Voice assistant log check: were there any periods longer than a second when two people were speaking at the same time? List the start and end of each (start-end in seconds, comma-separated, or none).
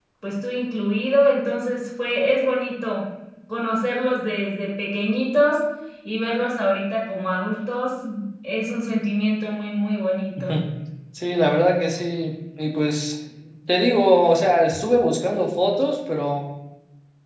none